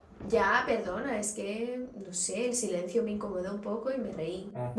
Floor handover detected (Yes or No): No